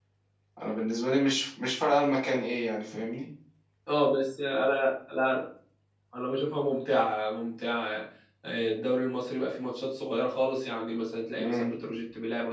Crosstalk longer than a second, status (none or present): none